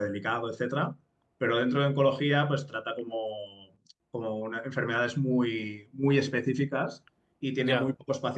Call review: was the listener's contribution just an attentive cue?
Yes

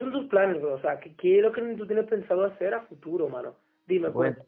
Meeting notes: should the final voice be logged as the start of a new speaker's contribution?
No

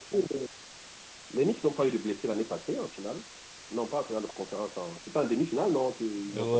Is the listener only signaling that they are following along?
No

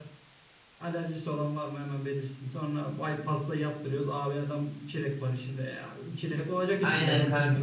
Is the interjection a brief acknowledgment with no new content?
No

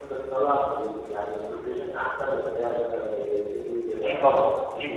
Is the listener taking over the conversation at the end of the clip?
Yes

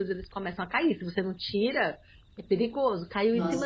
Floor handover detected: No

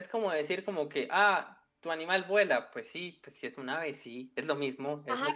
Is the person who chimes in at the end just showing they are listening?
No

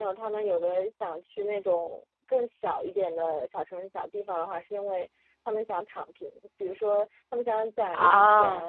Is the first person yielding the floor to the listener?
No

